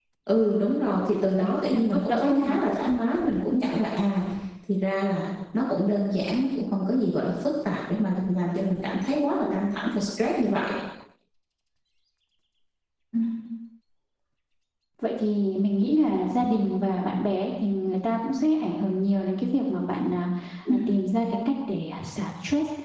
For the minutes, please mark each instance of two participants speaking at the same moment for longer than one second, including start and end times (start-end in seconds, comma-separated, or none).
1.1-2.5